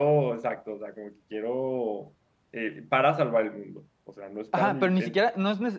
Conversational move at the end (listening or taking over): taking over